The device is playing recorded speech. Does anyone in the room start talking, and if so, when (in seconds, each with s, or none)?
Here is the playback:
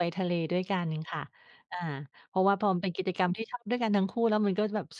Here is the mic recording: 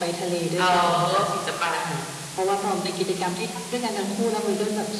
0.6 s